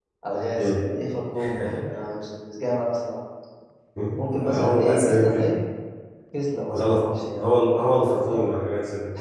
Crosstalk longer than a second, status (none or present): present